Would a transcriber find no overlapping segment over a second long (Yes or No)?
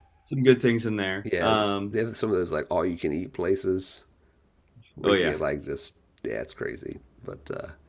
Yes